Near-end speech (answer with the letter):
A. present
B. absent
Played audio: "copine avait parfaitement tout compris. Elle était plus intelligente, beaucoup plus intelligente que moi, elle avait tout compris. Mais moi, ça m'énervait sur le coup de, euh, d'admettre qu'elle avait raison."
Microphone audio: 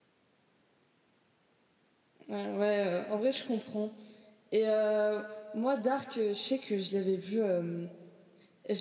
A